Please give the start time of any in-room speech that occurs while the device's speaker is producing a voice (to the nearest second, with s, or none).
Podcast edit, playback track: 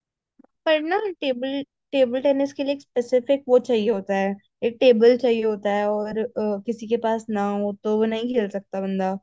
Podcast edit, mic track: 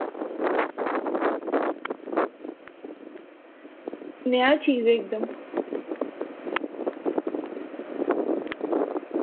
4 s